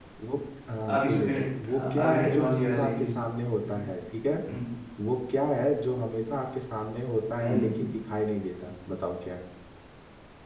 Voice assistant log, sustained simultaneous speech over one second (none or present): present